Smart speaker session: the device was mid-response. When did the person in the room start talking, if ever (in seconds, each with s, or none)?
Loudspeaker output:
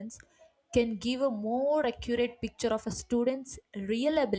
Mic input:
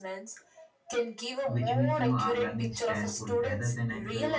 1.5 s